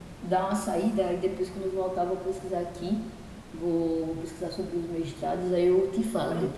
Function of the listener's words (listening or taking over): taking over